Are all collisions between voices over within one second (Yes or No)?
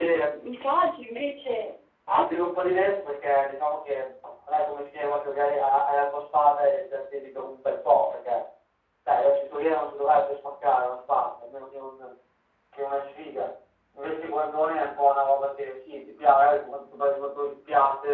Yes